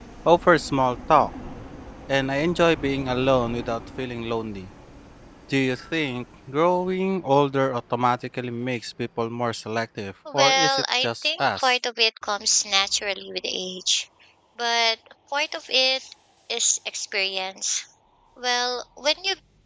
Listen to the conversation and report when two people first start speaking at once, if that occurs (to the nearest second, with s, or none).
10 s